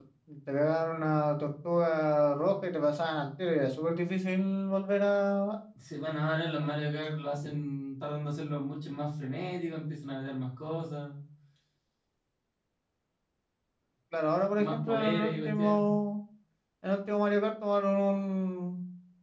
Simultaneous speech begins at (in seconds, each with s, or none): 14.6 s